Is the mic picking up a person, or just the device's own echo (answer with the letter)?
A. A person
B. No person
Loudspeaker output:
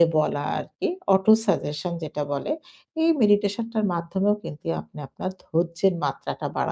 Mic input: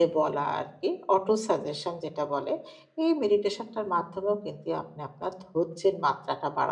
B